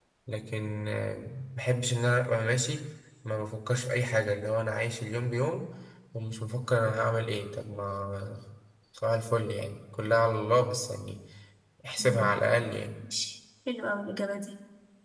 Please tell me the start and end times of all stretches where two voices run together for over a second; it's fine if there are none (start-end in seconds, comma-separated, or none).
none